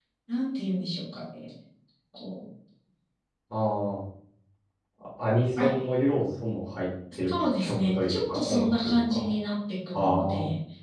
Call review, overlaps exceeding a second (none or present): present